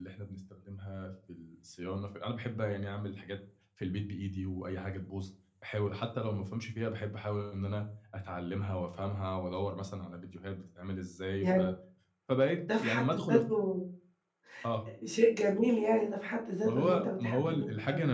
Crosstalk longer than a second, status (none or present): present